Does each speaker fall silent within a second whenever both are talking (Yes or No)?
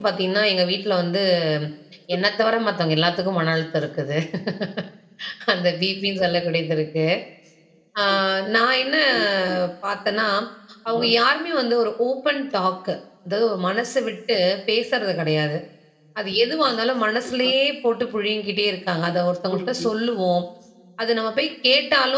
Yes